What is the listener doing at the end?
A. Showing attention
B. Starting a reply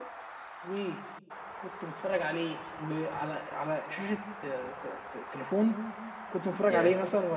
A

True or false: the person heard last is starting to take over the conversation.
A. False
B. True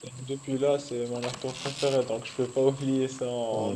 B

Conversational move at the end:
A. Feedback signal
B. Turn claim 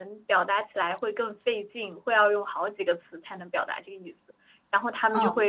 A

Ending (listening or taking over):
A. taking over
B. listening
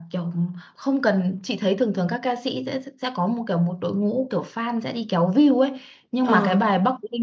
B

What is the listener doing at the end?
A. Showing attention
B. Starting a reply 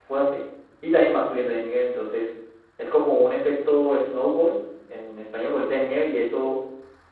A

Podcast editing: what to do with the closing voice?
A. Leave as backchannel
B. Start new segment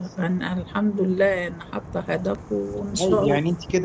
B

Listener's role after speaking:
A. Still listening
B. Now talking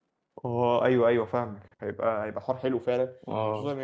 A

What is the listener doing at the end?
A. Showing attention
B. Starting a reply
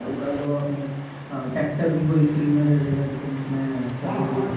B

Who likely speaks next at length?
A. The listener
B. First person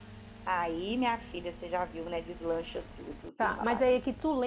A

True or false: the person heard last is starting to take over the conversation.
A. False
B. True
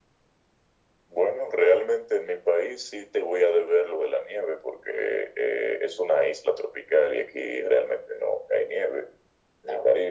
A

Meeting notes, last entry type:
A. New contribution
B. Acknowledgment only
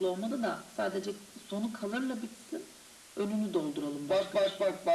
A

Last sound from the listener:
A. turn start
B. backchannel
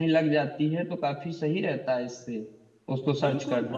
A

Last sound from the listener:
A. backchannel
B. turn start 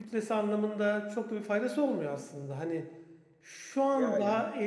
A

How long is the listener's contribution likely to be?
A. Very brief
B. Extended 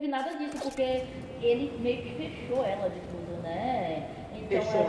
B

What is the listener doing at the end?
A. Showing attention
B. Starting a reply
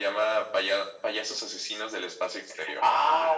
B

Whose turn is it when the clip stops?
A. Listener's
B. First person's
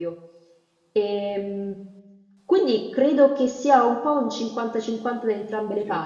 B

